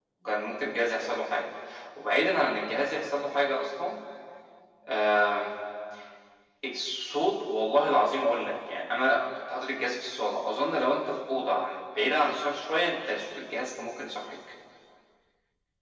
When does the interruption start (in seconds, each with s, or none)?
none